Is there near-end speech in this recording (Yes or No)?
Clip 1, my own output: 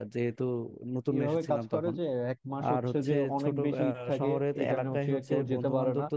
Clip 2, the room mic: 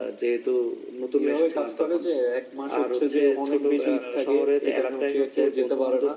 No